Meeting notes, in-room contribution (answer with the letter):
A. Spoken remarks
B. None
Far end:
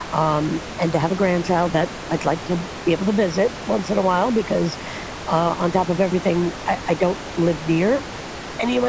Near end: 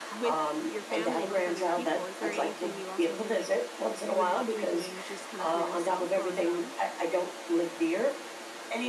A